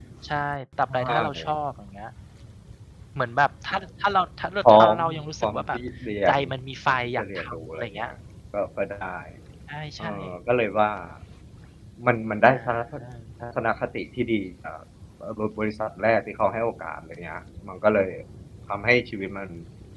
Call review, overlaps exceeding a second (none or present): present